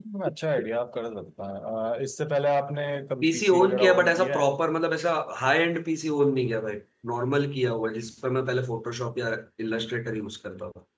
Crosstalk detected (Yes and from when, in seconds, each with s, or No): Yes, from 3.2 s